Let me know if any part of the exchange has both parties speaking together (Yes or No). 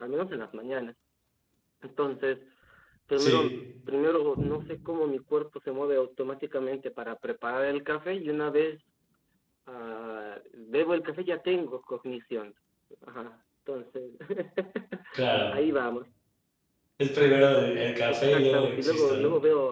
Yes